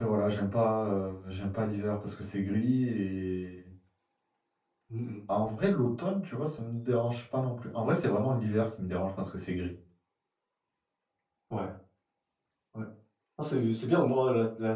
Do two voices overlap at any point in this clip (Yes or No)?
No